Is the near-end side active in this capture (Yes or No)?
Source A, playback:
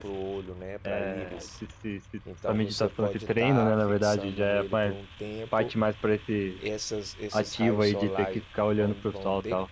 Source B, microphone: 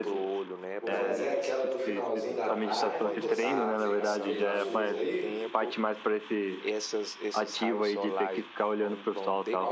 Yes